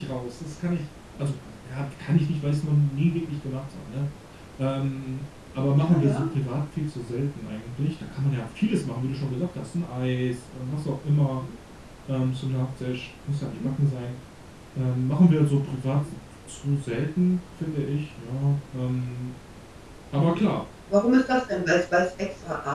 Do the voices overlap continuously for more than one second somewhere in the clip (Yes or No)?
No